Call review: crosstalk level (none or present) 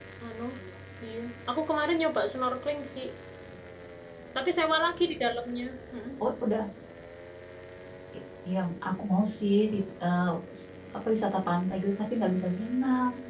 none